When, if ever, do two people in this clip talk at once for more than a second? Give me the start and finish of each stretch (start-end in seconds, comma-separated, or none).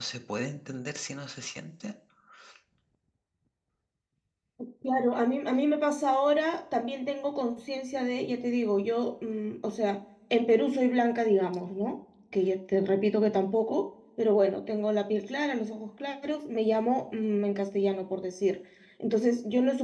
none